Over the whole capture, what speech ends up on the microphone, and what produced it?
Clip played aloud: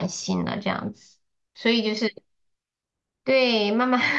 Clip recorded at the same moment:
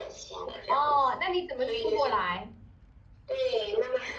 both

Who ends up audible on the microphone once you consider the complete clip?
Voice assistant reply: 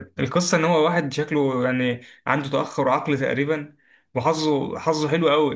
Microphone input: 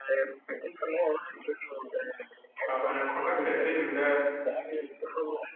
both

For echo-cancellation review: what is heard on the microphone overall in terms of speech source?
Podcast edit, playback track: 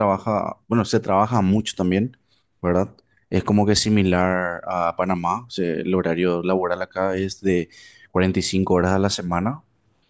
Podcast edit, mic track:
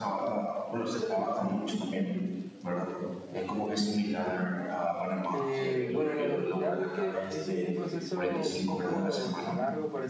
both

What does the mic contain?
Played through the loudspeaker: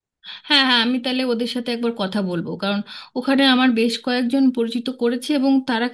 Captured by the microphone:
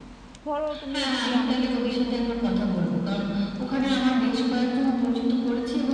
both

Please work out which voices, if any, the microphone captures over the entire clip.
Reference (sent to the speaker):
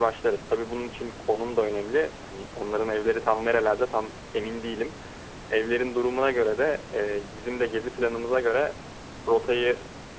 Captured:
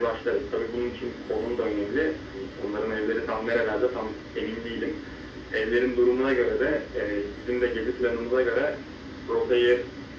echo only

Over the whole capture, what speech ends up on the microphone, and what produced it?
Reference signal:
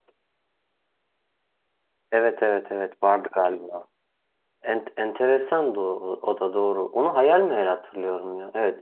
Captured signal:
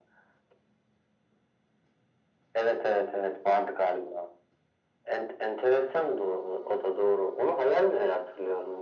echo only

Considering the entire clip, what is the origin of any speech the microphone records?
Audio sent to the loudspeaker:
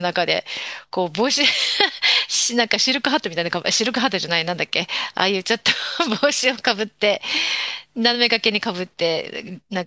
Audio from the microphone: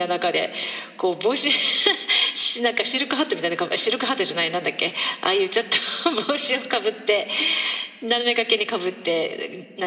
echo only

